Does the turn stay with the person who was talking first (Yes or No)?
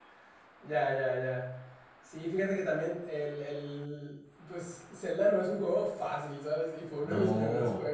Yes